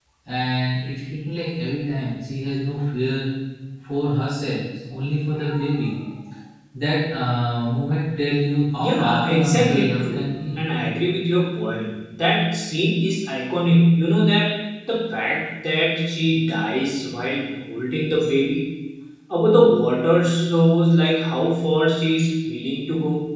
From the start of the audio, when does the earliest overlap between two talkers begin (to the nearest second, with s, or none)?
9 s